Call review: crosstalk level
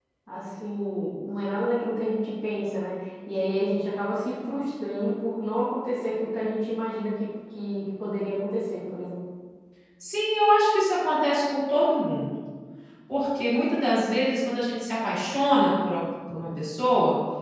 none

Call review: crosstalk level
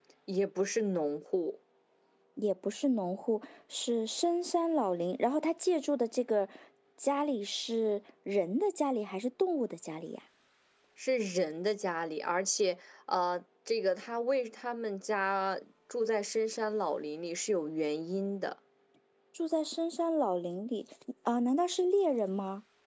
none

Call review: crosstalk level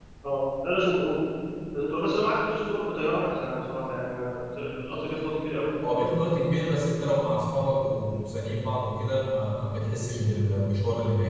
none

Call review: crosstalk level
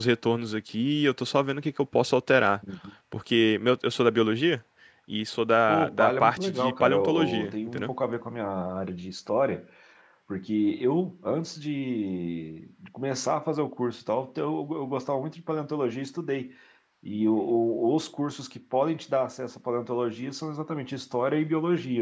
present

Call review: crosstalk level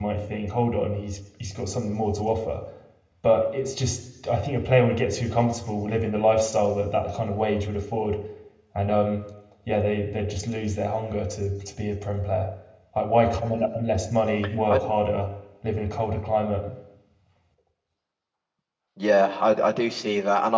none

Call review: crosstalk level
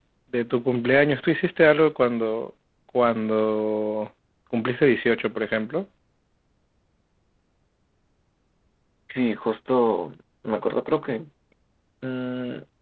none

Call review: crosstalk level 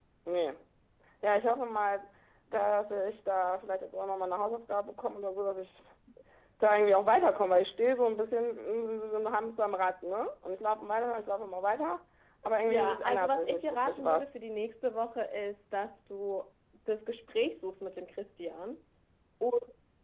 present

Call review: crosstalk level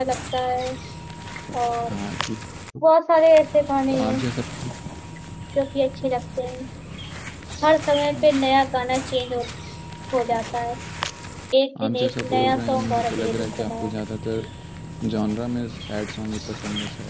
present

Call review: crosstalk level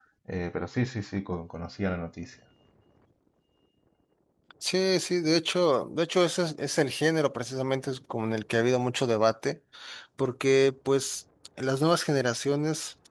none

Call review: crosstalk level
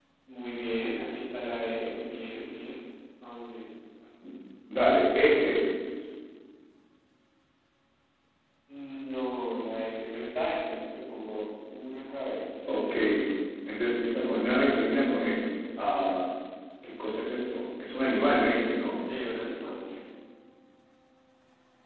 none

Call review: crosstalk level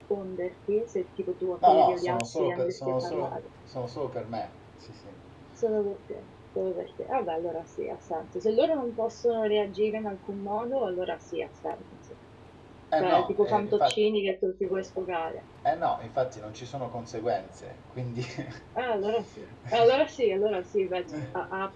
present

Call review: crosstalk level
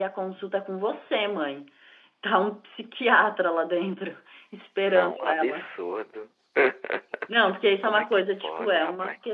present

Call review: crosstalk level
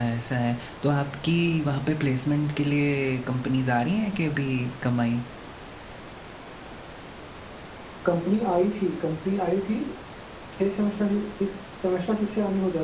none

